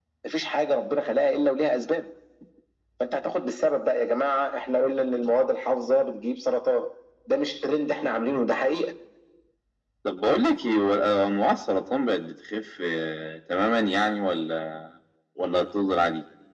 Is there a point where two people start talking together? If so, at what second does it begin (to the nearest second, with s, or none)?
none